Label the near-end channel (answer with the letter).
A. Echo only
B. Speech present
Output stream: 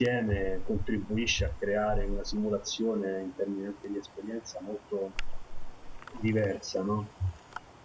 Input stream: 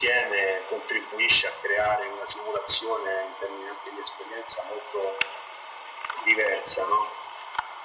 A